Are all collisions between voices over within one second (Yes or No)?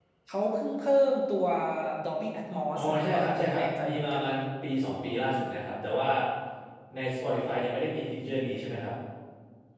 No